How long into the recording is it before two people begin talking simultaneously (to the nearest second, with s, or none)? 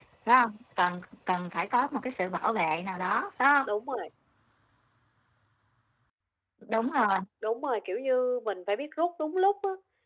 none